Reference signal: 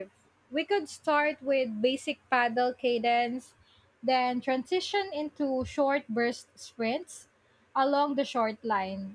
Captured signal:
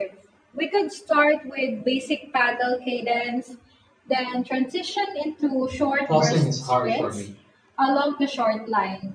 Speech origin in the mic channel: both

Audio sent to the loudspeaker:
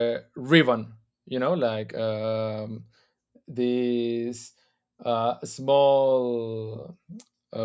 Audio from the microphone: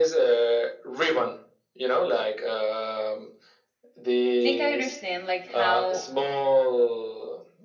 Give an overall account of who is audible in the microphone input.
both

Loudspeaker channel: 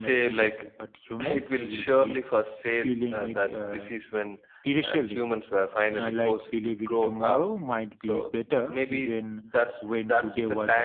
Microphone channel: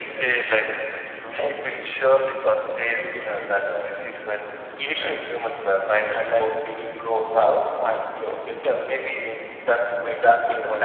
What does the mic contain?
echo only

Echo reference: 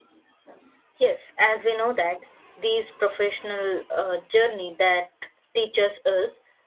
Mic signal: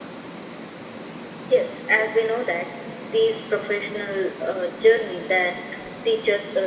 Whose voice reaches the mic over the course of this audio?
echo only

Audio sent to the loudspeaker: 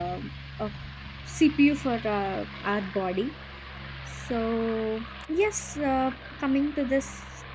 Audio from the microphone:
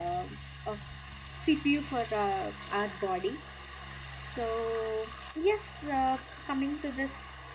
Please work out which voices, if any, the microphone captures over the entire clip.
echo only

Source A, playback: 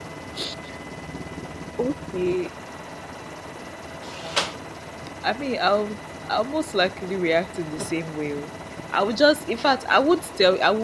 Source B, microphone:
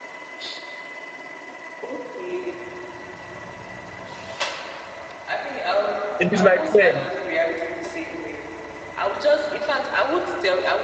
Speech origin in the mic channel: both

